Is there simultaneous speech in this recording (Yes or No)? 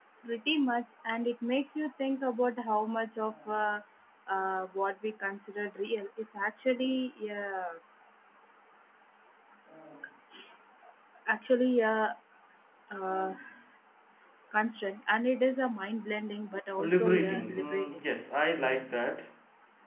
Yes